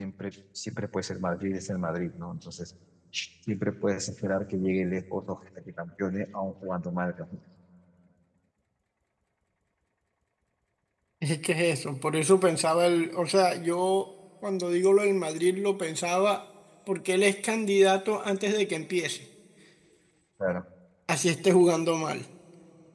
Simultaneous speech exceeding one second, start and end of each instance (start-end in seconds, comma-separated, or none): none